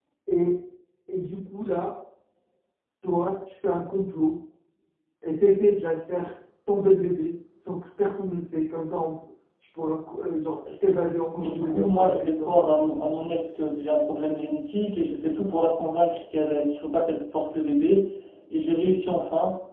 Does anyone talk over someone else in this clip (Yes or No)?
Yes